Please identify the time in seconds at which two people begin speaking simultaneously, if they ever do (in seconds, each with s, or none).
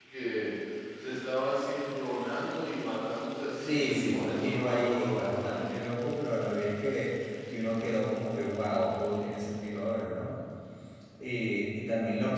3.6 s